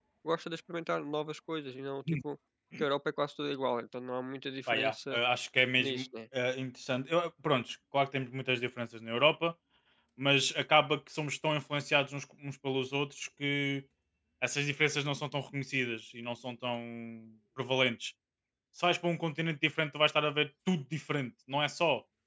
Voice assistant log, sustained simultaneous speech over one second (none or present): none